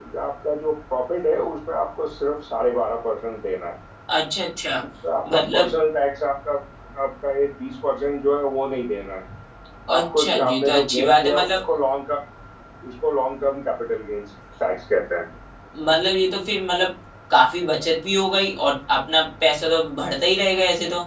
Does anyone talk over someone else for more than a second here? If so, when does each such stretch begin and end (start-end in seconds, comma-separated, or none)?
10.0-11.6